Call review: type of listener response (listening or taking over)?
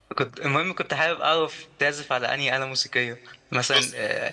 listening